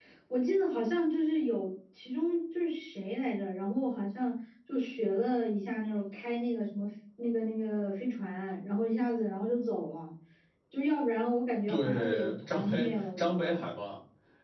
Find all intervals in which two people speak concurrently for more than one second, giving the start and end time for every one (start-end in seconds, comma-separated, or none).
11.7-13.6